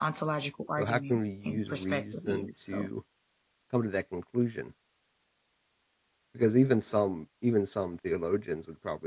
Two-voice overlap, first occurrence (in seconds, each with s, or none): 0.8 s